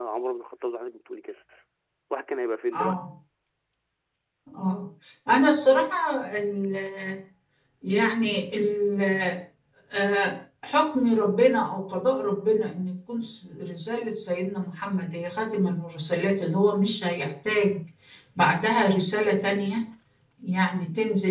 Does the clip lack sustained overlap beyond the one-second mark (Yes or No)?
Yes